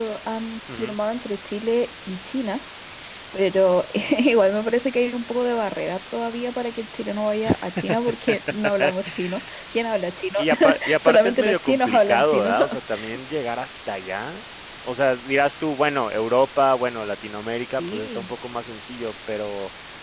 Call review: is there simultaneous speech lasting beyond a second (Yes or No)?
Yes